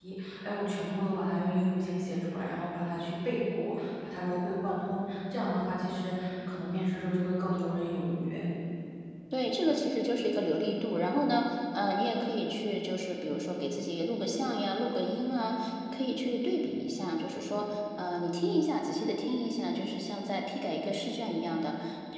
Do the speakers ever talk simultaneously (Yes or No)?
No